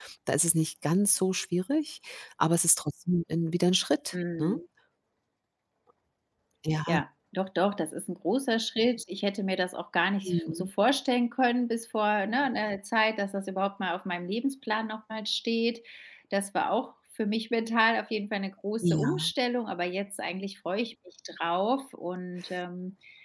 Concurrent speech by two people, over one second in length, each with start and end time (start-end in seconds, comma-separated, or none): none